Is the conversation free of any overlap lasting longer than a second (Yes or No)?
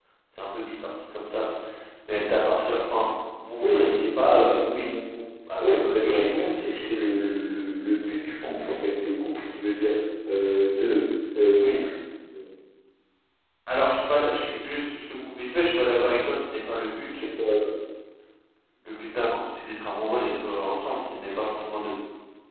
No